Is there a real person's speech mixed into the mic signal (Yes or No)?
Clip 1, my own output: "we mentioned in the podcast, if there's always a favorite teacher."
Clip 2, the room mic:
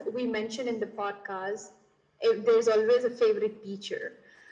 No